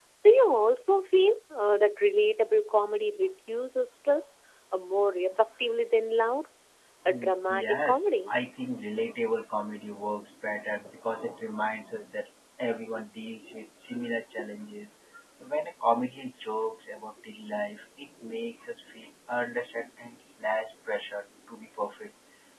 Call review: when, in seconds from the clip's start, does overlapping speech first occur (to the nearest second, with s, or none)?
7 s